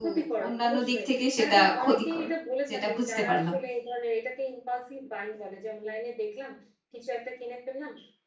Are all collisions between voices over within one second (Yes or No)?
No